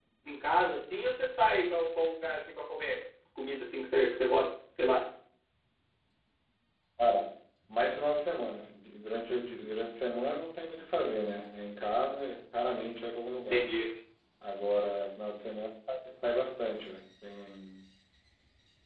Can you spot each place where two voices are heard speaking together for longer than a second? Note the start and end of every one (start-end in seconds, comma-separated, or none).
none